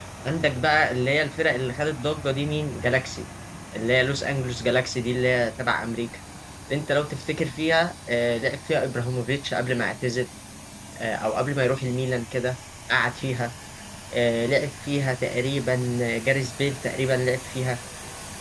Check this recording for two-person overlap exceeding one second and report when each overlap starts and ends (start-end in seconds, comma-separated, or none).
none